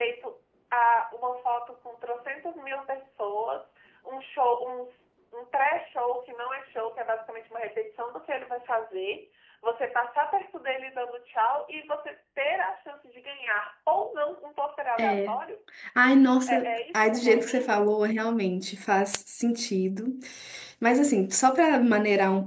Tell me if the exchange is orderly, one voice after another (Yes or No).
No